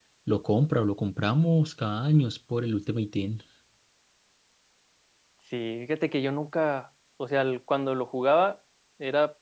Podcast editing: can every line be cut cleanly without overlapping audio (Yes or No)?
Yes